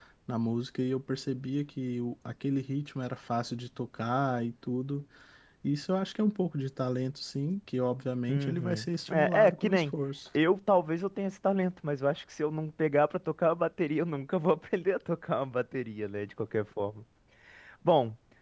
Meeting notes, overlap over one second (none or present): present